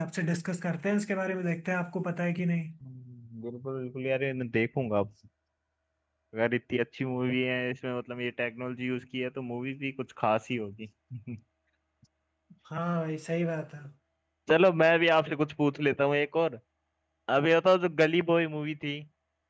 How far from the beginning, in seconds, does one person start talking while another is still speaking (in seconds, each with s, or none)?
none